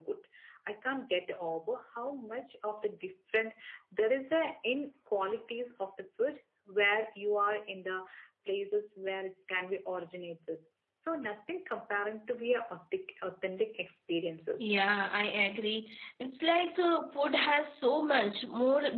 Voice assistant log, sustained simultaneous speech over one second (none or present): none